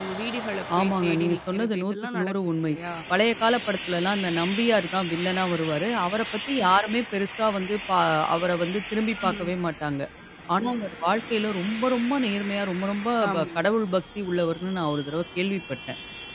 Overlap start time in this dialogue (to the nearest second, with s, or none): 1 s